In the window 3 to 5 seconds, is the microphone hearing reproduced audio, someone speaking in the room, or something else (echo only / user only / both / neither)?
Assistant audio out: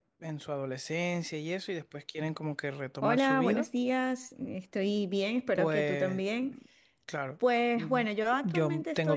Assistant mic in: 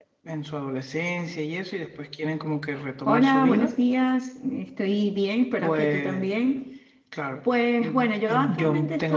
echo only